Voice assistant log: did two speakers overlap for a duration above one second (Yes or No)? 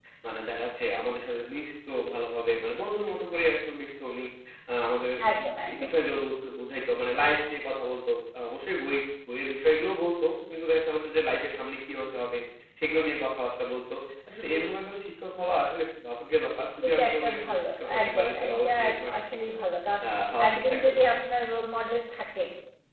Yes